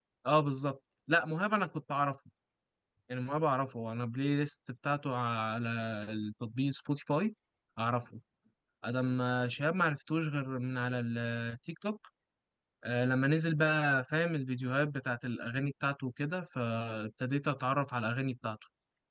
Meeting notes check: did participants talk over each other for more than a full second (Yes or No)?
No